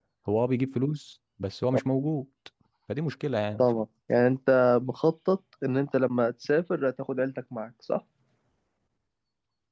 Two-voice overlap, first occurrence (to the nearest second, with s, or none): none